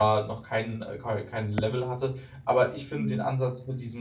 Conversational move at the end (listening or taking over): listening